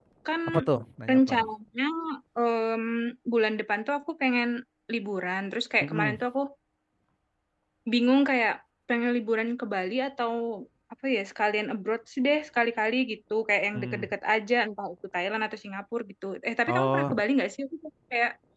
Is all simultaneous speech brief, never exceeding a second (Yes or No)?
Yes